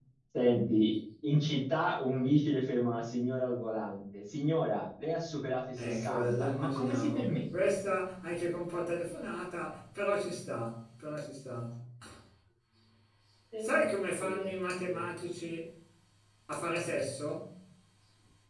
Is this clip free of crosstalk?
No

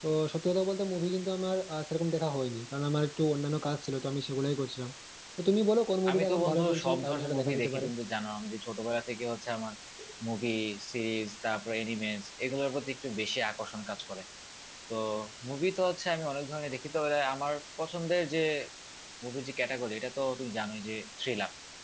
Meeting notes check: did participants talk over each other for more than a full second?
Yes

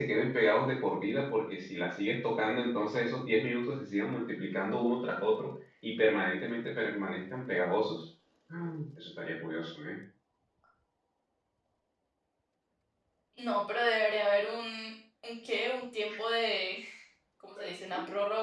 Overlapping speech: No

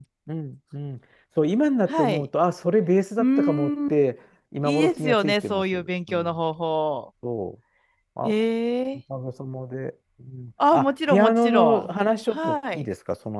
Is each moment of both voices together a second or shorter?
No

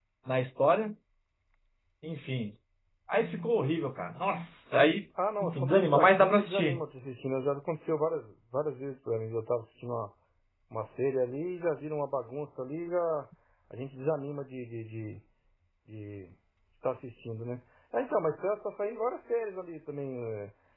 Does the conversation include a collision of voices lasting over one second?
Yes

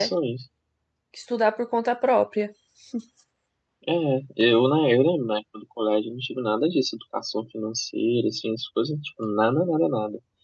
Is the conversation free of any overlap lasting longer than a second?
Yes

